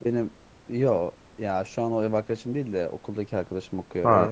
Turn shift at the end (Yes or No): Yes